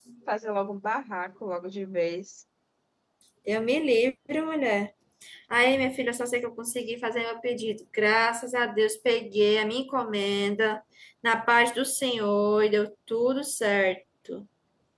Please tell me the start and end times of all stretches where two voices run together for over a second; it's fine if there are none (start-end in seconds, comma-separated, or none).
none